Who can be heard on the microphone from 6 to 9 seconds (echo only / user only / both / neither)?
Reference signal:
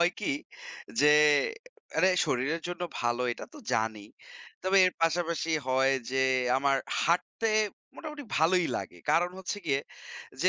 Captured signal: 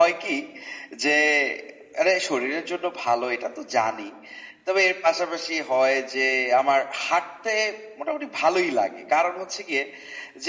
echo only